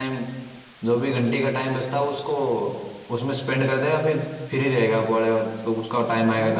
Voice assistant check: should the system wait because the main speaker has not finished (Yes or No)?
No